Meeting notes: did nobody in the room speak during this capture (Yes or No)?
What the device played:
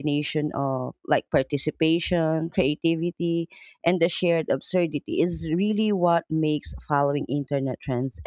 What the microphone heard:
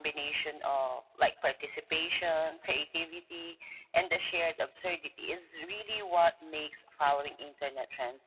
Yes